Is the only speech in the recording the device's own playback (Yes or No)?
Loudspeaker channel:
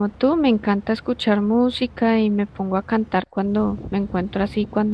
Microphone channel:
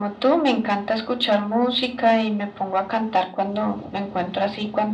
Yes